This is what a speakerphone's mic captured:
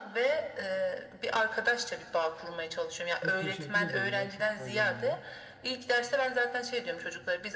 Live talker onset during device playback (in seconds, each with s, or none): 3.1 s